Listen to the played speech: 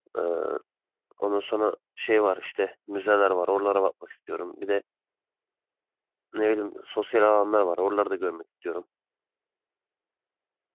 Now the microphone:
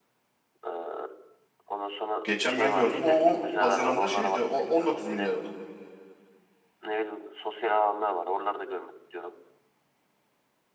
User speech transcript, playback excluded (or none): geçen ben gördüm. O, o Haziran'da şeydi. O 19 milyardı